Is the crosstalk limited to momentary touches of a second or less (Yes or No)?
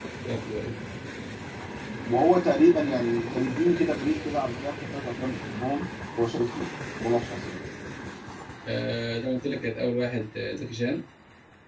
Yes